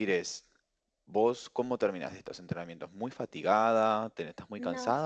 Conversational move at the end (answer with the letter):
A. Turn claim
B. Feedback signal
B